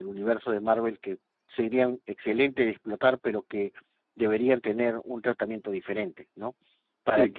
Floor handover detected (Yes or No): No